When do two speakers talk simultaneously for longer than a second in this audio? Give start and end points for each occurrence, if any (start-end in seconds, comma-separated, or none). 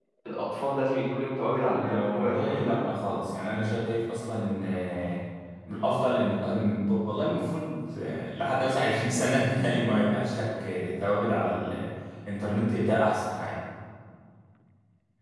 1.7-3.1